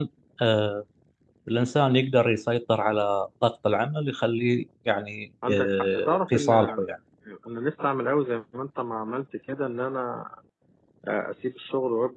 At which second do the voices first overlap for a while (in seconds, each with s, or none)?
5.4 s